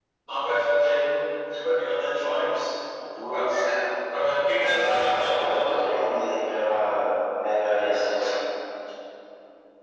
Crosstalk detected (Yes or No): Yes